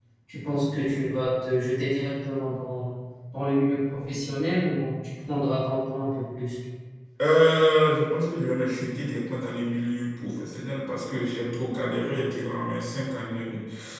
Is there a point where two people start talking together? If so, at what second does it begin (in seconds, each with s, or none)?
none